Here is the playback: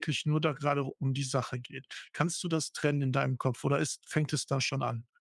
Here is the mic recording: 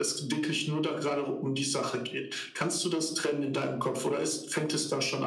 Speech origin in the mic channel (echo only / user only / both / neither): echo only